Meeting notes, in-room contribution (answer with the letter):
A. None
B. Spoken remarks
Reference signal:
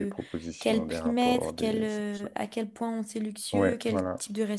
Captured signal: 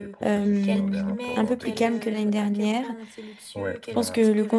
B